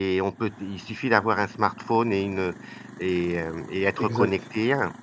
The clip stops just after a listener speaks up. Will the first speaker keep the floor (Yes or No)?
Yes